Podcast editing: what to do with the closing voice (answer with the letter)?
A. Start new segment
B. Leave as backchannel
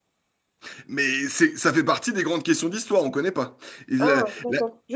A